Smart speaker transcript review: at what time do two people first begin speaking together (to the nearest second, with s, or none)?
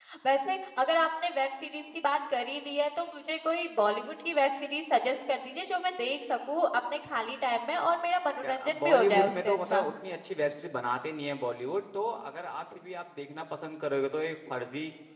8 s